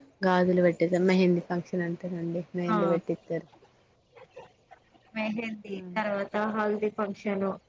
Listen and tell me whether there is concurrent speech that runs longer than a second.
No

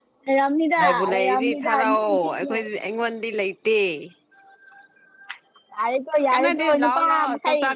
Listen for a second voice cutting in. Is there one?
Yes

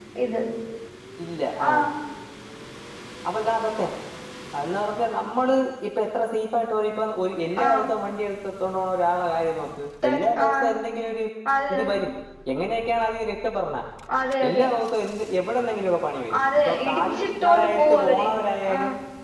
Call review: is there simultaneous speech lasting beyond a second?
Yes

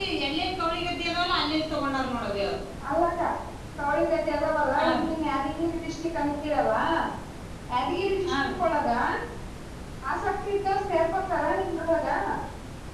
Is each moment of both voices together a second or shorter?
Yes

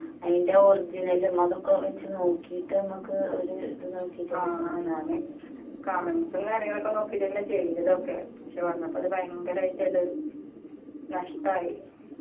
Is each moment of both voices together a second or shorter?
Yes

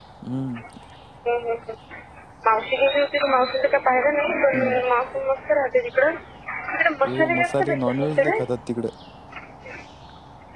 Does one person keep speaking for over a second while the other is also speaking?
Yes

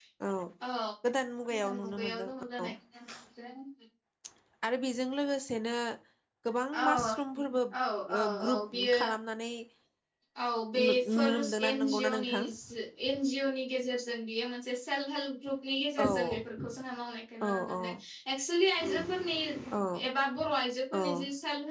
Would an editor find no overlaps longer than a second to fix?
No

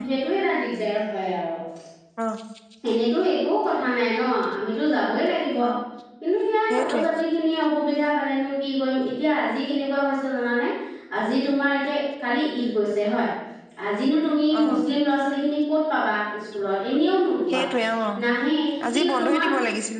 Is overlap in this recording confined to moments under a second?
Yes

